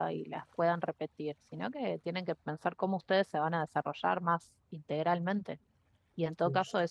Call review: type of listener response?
listening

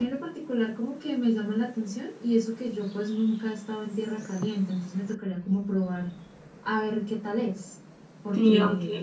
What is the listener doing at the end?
taking over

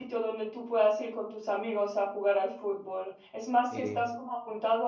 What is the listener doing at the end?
listening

